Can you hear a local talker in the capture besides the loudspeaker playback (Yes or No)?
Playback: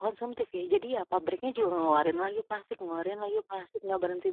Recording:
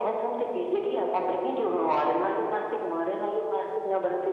No